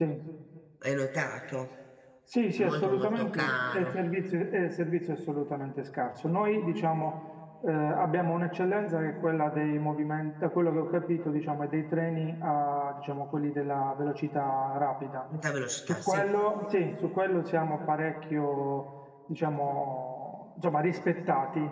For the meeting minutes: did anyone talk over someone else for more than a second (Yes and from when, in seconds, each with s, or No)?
Yes, from 2.6 s